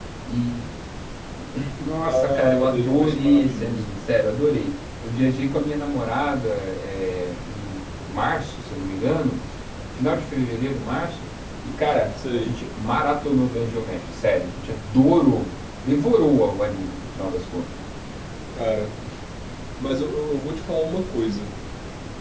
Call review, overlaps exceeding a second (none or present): present